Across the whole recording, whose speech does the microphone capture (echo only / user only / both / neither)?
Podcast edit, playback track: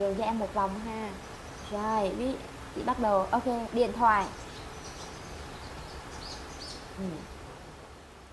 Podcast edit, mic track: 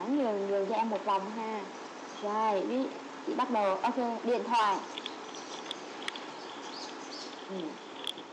echo only